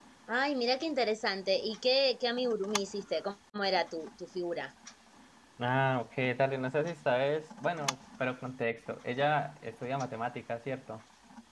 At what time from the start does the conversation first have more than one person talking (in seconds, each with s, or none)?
none